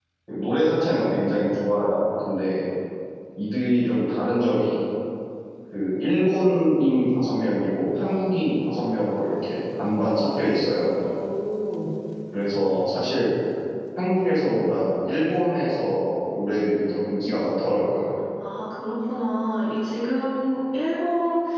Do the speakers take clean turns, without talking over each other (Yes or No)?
Yes